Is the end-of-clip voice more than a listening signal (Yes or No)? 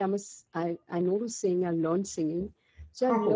No